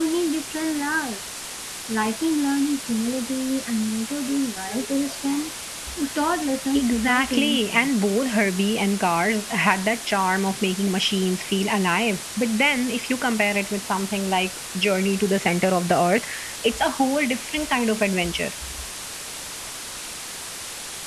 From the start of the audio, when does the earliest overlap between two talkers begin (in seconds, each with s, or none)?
6.7 s